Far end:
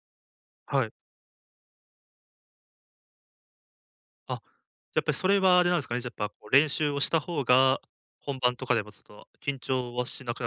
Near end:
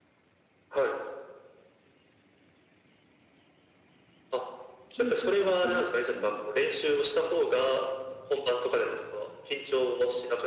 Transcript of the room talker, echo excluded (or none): 緊張が収まってると思います。